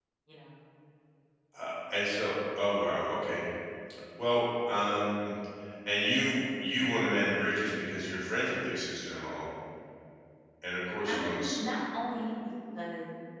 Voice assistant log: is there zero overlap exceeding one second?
Yes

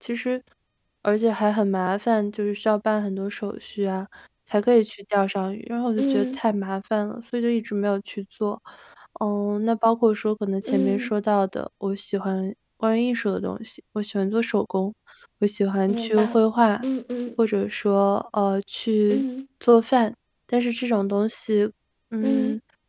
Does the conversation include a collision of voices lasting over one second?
No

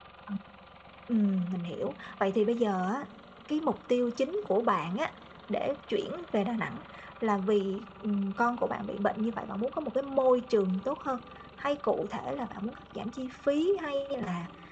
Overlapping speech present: No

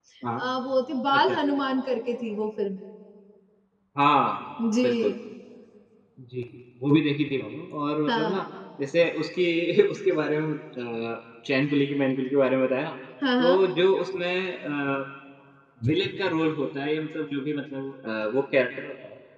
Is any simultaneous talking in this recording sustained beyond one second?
No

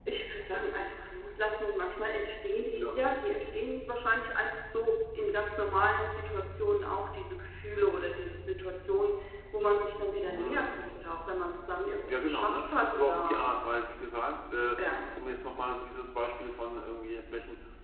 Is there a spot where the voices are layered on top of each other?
Yes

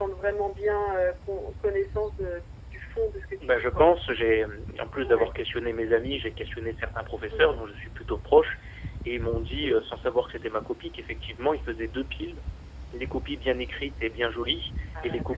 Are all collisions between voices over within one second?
Yes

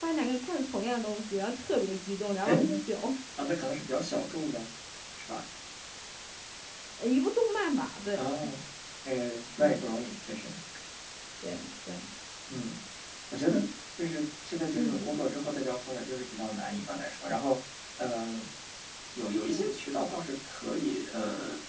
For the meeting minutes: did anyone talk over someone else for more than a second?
No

